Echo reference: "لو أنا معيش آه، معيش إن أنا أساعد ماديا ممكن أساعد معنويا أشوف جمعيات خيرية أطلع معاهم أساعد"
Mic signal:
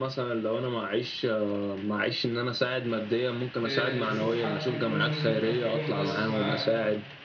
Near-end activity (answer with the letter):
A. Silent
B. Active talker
B